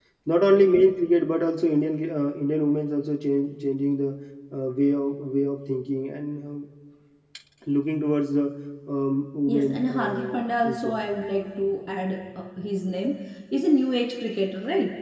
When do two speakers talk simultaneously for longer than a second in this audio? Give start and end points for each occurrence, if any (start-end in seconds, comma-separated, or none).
9.5-11.0